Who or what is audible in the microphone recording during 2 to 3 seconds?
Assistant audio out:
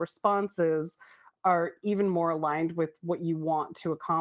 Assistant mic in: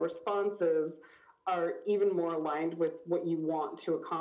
echo only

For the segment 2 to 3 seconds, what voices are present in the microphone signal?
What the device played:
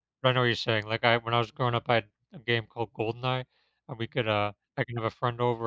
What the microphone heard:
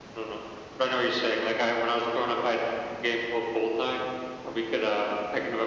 echo only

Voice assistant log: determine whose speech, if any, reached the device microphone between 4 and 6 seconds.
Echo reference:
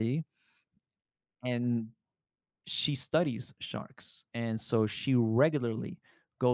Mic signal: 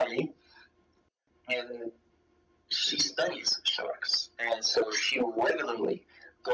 echo only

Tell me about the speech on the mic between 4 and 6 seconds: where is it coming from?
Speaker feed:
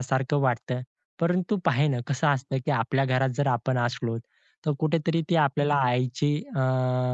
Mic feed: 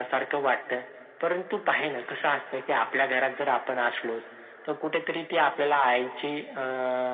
echo only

